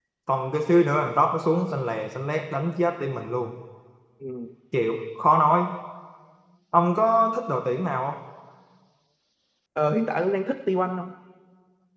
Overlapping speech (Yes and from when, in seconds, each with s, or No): No